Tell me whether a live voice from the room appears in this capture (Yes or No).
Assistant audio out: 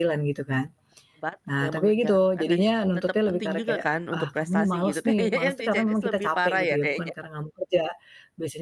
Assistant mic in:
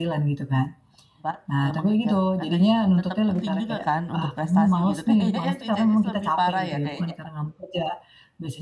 No